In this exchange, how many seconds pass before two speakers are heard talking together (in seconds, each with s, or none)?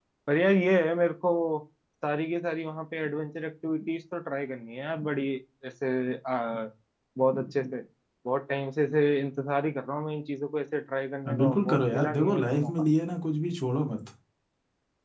11.2 s